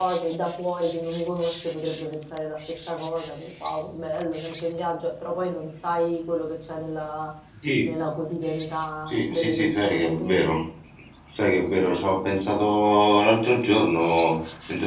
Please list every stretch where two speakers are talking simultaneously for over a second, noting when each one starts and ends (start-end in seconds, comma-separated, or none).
9.1-10.4